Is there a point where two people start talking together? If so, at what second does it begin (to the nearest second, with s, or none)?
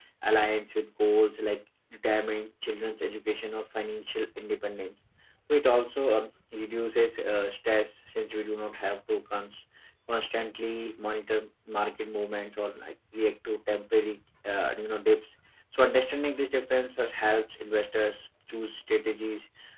none